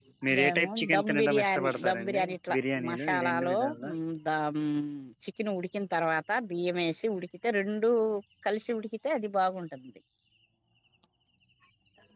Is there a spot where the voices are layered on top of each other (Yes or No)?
Yes